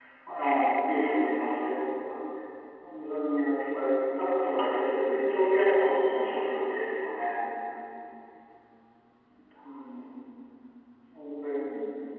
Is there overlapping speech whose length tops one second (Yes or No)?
Yes